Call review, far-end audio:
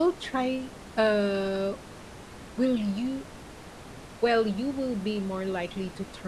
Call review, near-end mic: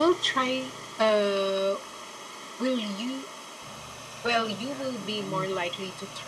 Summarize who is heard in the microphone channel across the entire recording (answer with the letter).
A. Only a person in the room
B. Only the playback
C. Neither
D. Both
D